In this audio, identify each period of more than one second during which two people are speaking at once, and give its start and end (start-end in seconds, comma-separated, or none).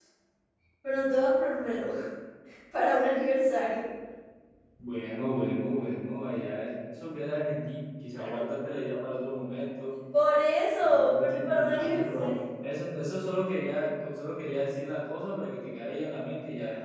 10.8-12.4